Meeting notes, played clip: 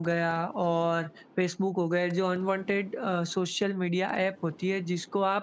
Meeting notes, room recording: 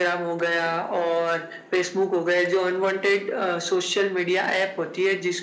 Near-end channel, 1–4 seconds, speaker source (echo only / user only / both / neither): echo only